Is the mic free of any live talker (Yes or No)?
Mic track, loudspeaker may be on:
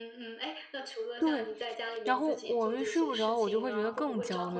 No